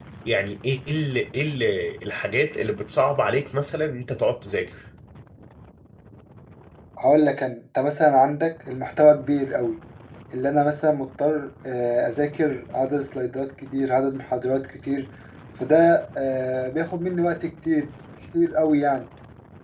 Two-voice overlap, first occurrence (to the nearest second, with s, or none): none